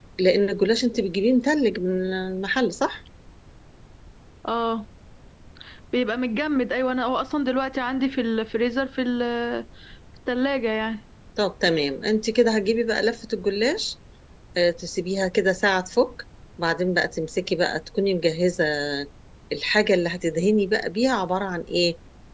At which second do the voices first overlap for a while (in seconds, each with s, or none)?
none